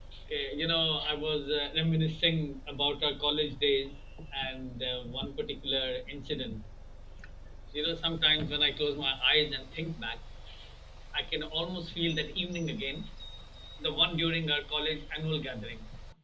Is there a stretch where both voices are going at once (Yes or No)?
No